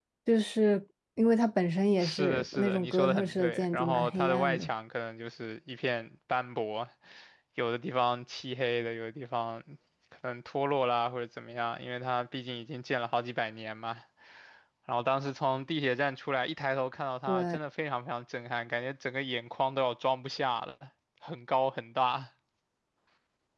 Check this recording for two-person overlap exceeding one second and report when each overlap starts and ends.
2.0-4.7

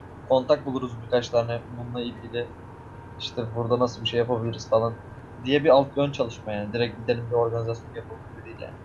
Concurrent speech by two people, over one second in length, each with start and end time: none

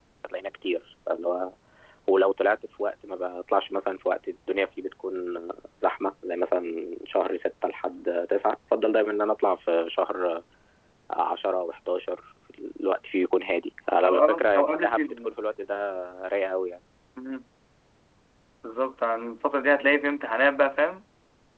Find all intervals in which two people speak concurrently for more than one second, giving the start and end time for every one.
14.1-15.3

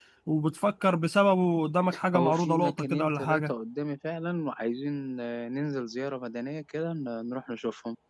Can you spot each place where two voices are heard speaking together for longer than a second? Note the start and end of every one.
2.2-3.5

